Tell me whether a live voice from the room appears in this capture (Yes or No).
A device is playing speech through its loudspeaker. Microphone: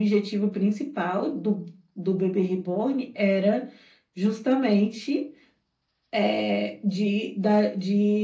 No